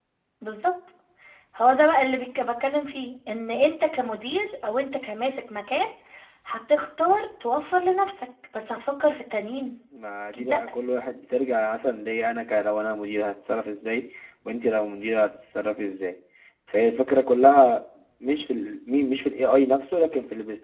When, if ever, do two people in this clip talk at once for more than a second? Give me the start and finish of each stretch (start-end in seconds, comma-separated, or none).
none